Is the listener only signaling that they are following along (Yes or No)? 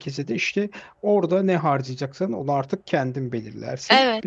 Yes